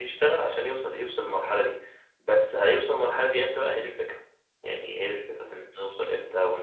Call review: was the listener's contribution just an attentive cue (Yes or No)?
Yes